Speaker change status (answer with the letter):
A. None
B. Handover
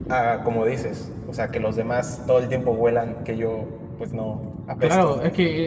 B